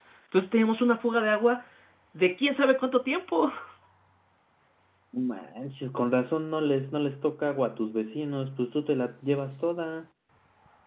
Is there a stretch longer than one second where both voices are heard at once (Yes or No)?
No